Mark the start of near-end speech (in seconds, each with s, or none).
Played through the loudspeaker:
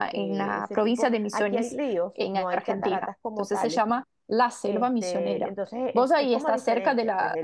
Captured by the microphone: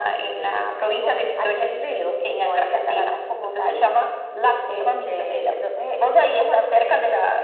none